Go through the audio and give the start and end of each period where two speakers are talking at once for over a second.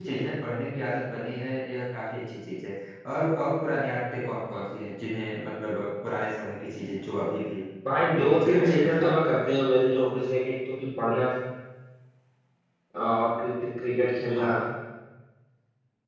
8.0-9.3

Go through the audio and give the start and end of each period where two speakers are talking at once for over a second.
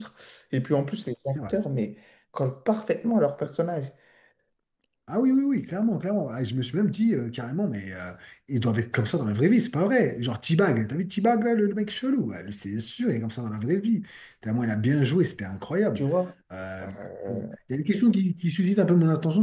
none

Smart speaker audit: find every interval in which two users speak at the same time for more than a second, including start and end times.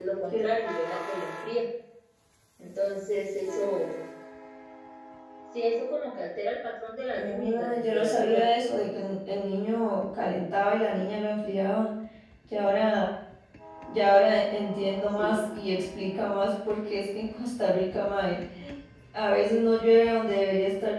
7.1-8.4

